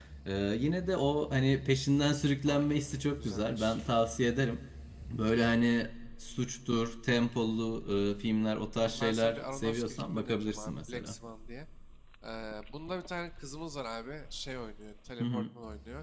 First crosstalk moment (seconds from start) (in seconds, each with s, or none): 2.5 s